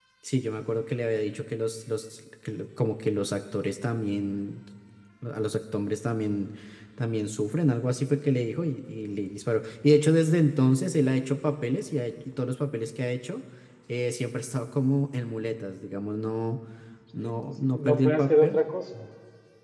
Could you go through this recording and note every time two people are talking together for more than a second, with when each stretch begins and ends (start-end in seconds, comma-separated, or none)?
17.2-18.6